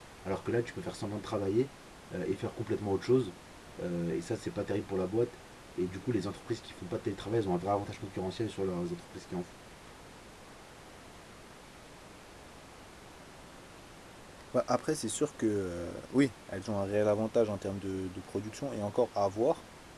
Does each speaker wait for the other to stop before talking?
Yes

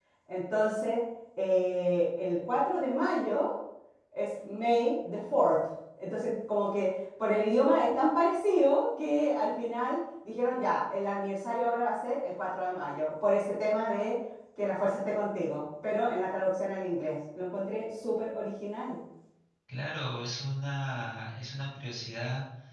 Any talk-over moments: No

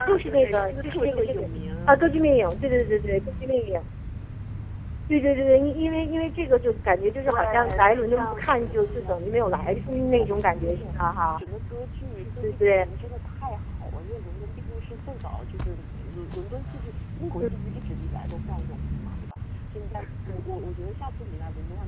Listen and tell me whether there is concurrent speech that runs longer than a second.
Yes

